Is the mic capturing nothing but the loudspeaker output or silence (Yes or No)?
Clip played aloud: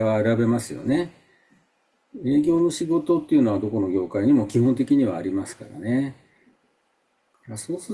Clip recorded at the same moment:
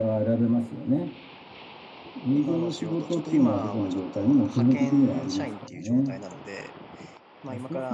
No